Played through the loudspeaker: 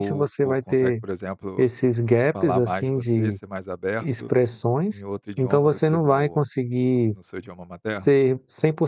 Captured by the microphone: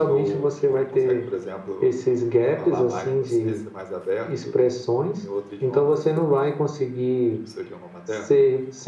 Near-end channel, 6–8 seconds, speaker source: echo only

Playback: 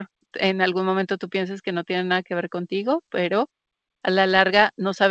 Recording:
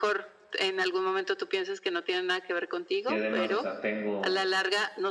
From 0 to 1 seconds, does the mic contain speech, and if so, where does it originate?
echo only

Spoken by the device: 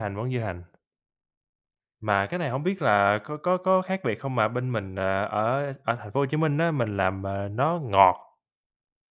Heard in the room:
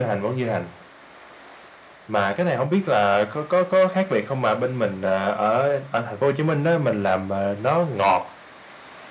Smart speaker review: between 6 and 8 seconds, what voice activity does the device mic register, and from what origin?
echo only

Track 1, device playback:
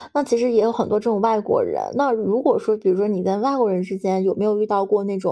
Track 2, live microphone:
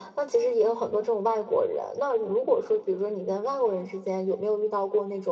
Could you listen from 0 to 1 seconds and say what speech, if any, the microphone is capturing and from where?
echo only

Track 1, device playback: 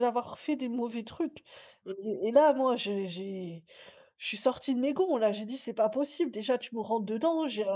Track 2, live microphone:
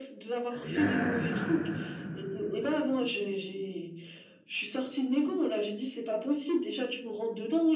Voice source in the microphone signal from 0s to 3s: both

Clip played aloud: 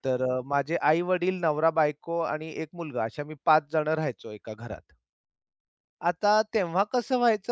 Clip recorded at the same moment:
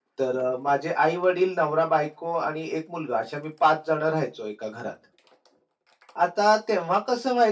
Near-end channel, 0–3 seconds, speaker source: echo only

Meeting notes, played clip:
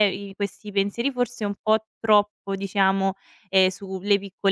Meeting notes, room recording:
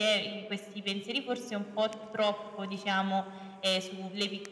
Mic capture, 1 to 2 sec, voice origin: echo only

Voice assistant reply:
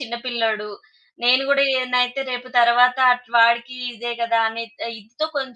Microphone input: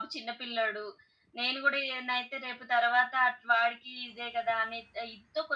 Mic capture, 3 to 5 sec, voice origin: echo only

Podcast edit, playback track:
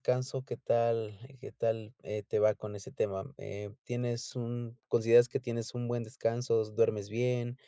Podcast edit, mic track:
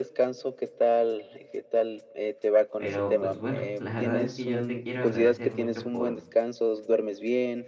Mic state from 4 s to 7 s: both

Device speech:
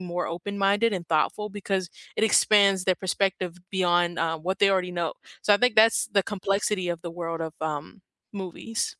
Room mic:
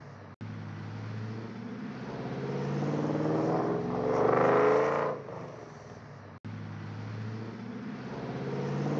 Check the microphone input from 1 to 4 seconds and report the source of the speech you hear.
neither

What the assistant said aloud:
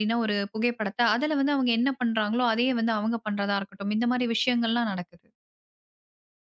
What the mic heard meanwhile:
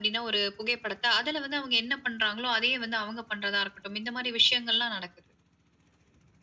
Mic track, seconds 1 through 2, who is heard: echo only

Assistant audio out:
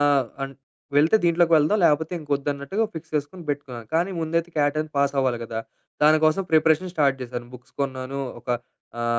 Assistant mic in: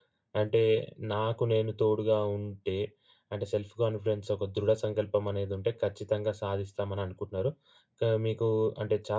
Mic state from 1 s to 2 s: user only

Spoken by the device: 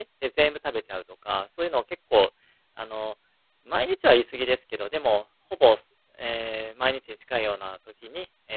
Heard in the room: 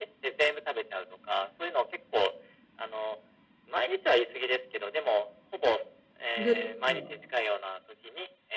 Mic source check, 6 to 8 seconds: both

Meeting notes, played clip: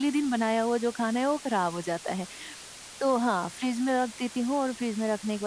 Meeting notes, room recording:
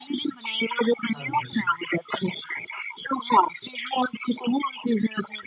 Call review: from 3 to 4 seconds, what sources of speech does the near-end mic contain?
echo only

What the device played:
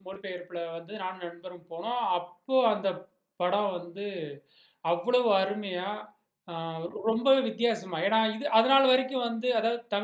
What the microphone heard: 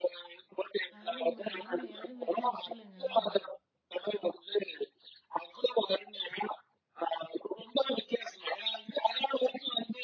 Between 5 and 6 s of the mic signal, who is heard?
echo only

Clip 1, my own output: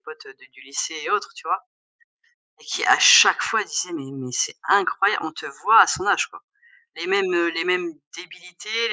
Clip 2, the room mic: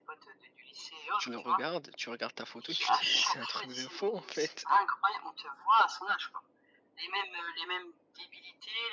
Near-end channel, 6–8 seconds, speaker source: echo only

